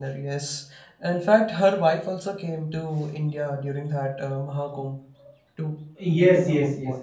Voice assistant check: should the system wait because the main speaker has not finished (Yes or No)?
No